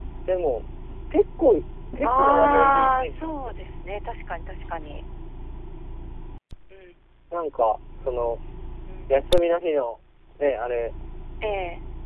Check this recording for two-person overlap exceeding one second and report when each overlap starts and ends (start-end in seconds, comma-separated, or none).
2.0-3.7